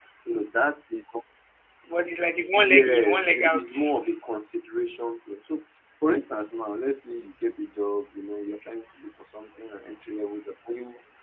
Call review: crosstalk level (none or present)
present